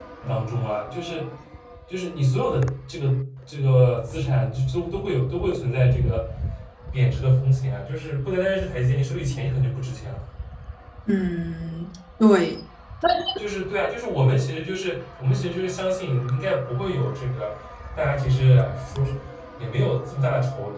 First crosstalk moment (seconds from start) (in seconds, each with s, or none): none